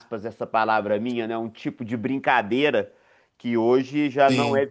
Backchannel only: Yes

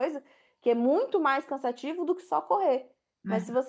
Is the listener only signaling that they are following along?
Yes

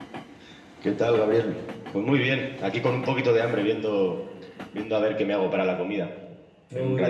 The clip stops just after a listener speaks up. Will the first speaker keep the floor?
No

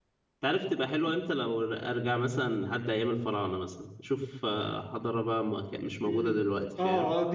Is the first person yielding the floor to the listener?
Yes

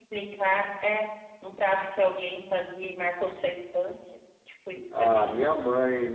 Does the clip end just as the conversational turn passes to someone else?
Yes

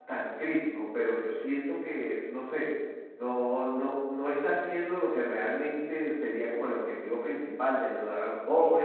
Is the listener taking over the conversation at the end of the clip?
Yes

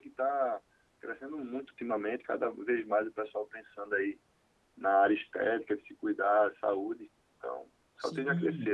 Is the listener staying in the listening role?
No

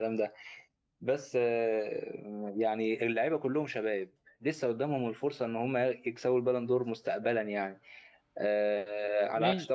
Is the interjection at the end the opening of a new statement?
No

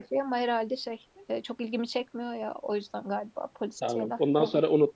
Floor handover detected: Yes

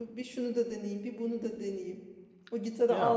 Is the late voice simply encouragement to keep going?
Yes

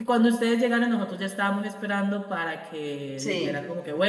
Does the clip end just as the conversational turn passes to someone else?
No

